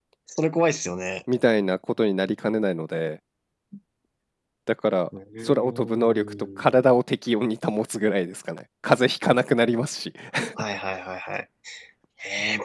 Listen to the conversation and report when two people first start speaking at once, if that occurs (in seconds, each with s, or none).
5.5 s